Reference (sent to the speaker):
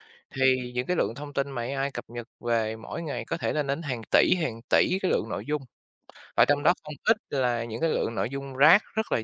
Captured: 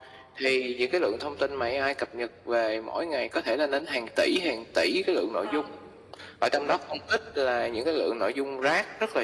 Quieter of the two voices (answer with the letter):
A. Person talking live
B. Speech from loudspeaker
A